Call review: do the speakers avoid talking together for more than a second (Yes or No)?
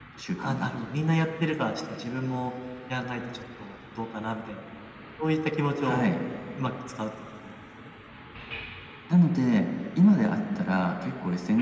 Yes